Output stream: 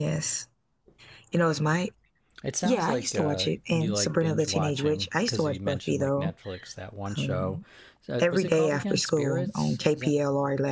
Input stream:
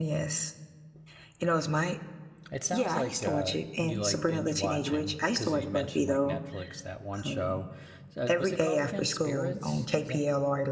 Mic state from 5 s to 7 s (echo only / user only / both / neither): echo only